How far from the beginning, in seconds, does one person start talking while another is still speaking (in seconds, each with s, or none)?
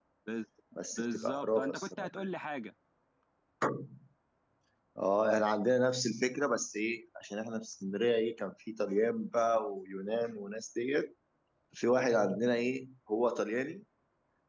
0.9 s